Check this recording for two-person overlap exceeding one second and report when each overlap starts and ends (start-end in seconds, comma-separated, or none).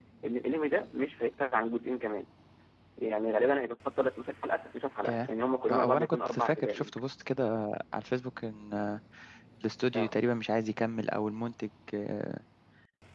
5.7-7.0